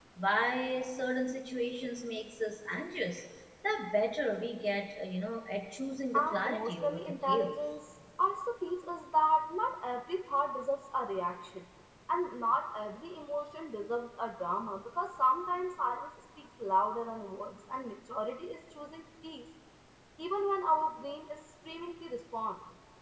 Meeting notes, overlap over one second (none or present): present